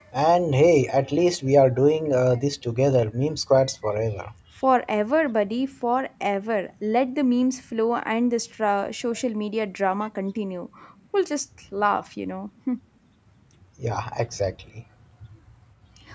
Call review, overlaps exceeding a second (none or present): none